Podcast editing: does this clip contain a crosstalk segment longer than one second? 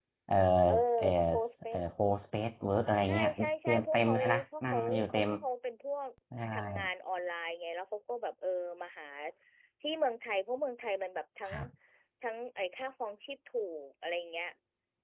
Yes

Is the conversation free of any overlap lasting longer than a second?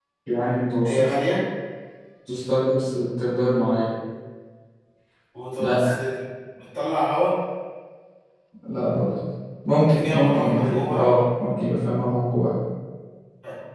No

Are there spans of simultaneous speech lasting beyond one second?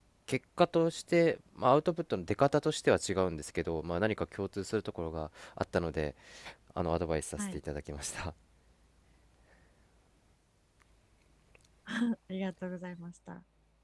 No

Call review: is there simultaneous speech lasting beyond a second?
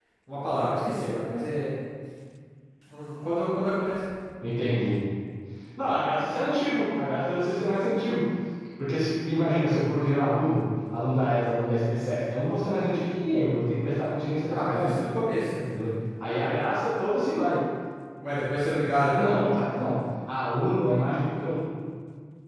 No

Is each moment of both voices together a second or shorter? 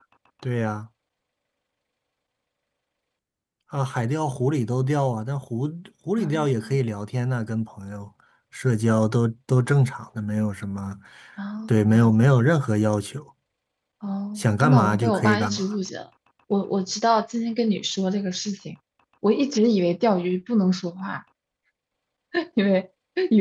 No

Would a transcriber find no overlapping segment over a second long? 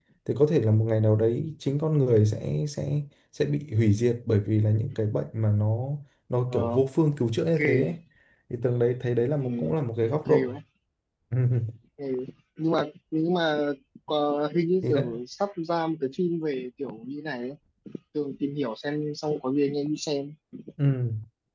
Yes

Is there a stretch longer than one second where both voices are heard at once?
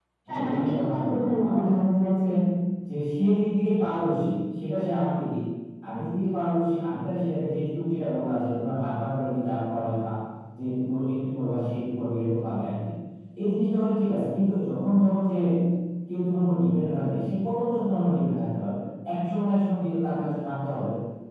Yes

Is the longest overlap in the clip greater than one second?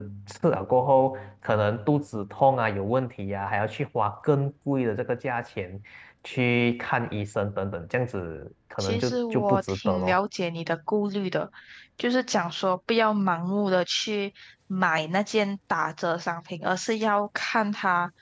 Yes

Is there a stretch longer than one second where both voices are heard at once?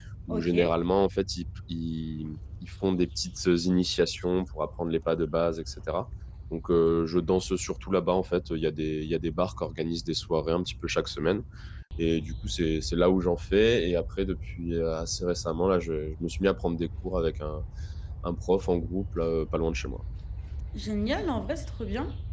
No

